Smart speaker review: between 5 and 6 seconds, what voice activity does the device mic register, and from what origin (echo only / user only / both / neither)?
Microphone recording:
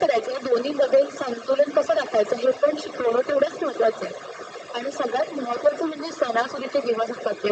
echo only